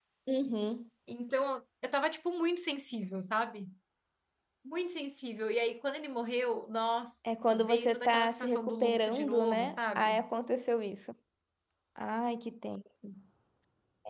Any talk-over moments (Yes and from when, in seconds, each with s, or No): Yes, from 7.2 s